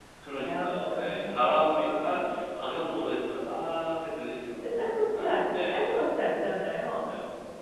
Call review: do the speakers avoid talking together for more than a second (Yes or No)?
No